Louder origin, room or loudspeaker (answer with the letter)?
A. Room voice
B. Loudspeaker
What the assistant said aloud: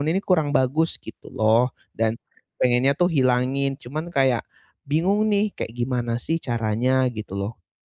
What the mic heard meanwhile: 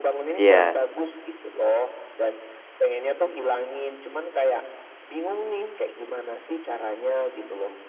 A